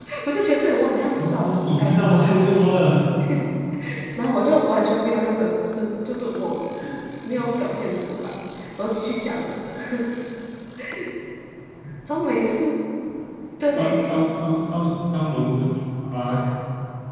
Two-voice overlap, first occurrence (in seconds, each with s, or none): 1.2 s